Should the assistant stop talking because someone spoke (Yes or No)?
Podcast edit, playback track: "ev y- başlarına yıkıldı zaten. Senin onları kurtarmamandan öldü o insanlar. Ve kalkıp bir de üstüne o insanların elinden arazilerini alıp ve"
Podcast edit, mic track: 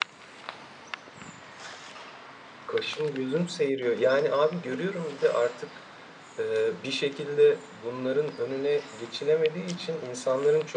Yes